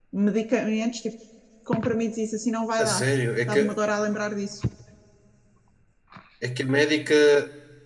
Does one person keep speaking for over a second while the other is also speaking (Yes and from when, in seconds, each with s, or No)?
No